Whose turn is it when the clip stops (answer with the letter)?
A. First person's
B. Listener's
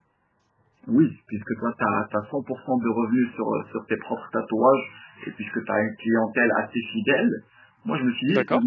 A